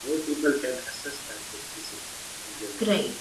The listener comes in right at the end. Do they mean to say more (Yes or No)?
Yes